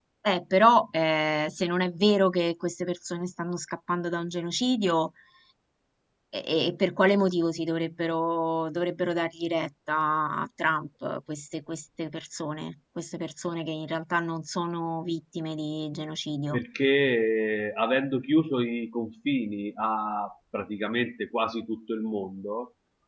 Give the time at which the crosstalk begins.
none

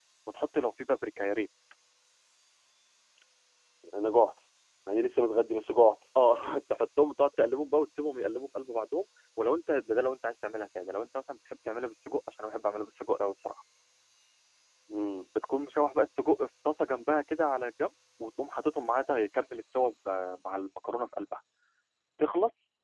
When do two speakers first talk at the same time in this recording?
none

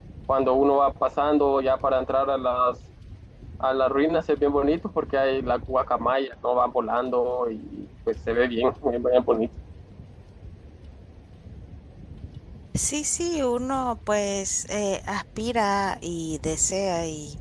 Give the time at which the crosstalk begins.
none

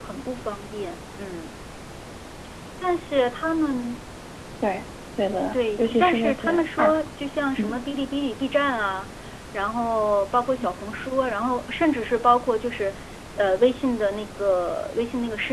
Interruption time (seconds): 5.5 s

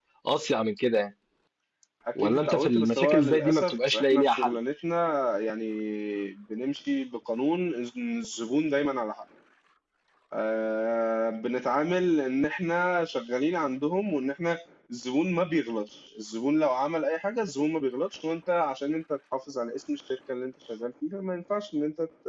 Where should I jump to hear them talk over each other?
2.1 s

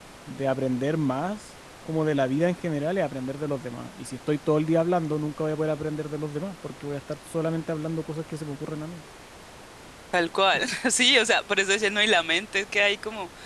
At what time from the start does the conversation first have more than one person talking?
none

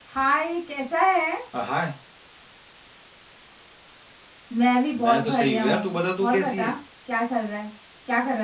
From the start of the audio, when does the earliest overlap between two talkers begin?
4.9 s

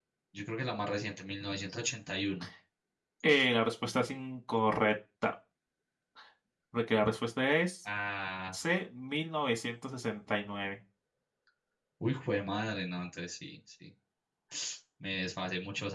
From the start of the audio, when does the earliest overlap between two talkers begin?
none

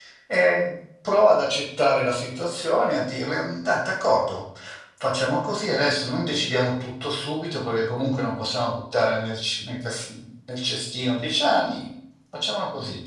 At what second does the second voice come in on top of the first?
none

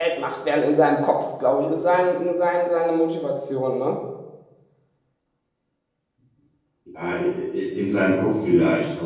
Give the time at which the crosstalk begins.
none

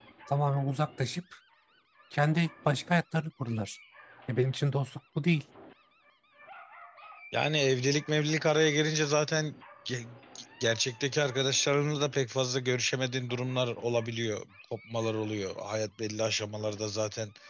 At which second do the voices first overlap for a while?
none

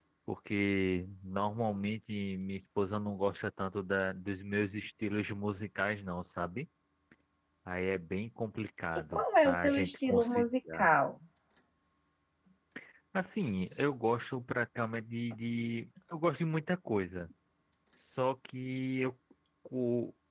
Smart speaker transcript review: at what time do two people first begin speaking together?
9.1 s

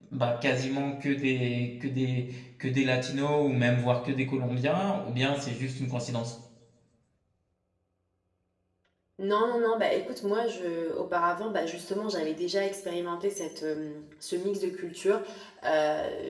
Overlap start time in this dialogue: none

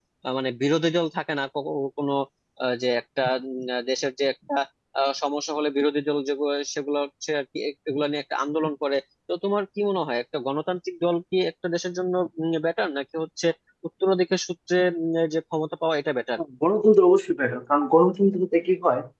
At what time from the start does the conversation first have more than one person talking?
none

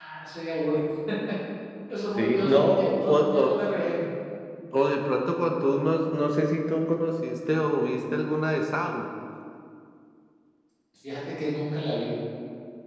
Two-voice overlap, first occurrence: 2.2 s

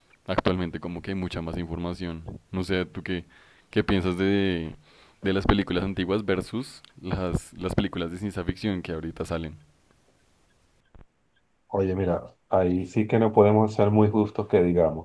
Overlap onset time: none

